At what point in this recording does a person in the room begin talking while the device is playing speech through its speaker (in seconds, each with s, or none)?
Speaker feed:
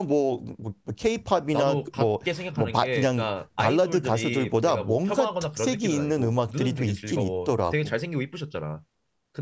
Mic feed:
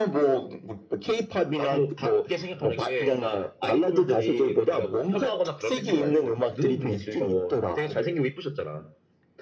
none